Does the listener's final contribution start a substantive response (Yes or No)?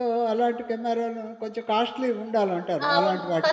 Yes